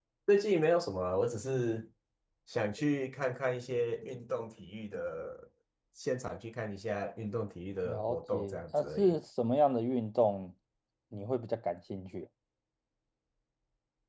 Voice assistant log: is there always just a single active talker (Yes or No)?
No